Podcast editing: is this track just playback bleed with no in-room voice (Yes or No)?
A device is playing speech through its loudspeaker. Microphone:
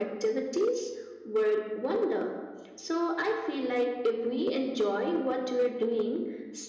Yes